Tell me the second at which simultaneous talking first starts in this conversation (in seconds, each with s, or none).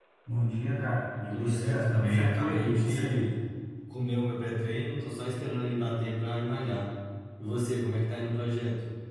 1.3 s